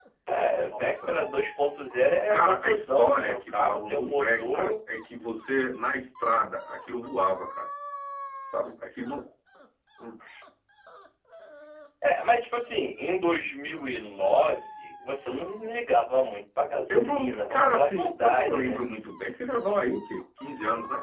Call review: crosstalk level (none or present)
present